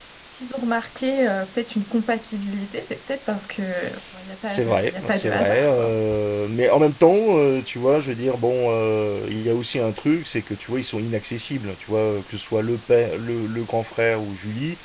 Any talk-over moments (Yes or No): Yes